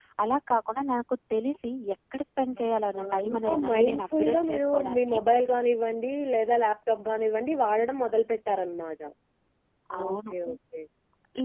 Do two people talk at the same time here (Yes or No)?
Yes